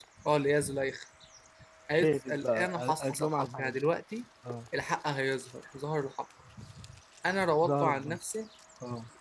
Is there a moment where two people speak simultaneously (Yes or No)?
Yes